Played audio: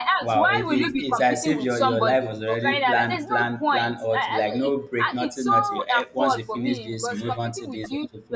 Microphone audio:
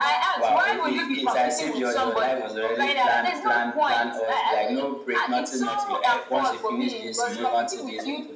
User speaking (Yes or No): No